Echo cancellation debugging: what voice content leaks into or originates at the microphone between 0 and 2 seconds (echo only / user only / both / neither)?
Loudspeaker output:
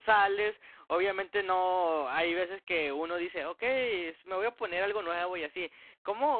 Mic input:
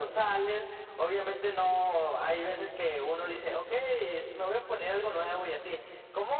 echo only